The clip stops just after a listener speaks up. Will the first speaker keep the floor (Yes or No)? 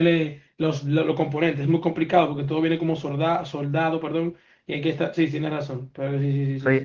No